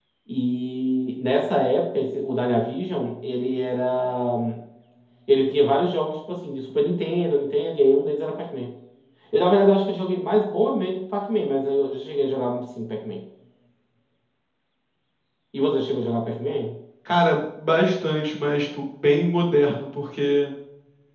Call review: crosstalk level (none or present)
none